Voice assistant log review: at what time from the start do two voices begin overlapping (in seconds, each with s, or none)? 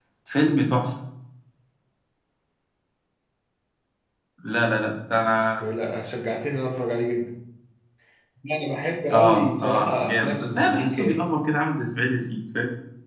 9.1 s